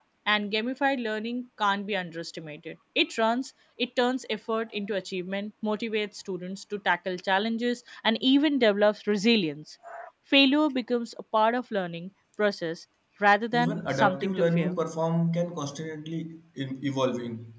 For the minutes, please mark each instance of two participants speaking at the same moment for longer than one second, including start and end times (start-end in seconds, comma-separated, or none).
13.5-14.8